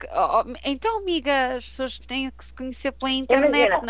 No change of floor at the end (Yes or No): No